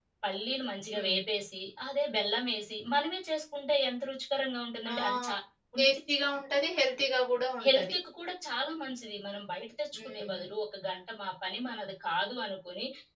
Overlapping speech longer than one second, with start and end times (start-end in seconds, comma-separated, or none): none